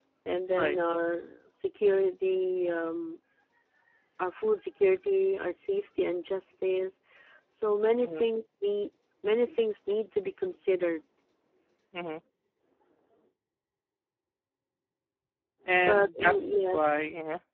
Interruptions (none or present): present